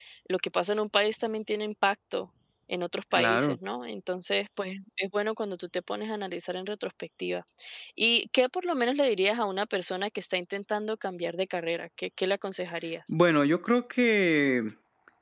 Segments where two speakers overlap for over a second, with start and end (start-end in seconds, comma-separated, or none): none